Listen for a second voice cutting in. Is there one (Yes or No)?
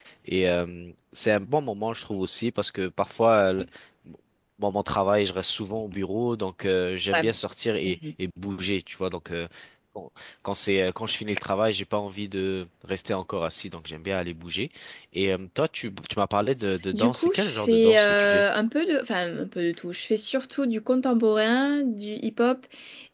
Yes